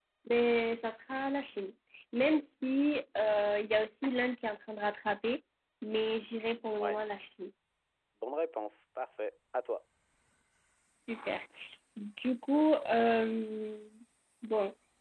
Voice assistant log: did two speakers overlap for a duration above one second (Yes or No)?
No